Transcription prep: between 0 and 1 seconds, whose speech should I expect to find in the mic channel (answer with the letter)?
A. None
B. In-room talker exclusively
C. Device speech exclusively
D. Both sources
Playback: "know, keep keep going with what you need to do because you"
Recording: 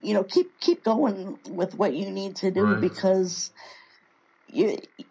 C